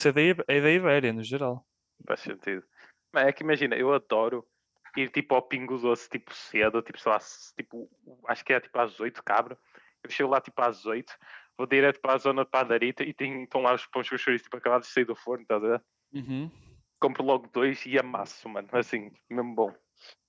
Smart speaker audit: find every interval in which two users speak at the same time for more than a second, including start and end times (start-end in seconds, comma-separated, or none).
none